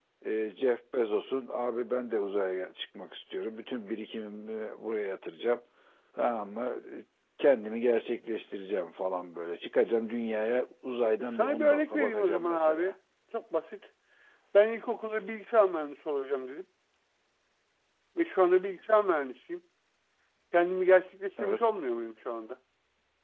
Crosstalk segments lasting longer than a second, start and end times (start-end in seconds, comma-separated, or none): 11.4-12.9